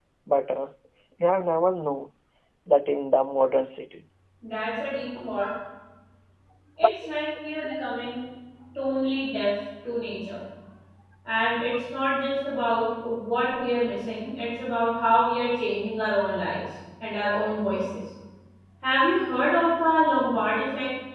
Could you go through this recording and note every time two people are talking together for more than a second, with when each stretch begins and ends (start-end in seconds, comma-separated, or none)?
none